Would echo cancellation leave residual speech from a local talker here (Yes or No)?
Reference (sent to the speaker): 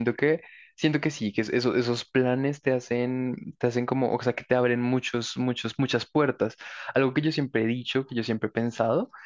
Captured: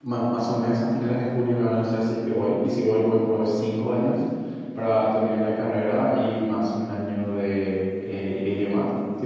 Yes